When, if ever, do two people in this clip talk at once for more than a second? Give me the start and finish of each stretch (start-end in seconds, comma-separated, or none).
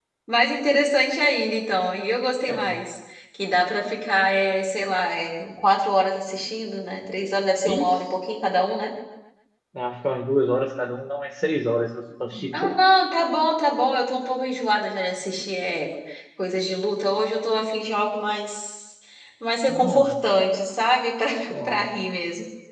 none